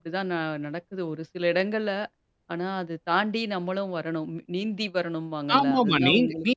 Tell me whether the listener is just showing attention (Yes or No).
No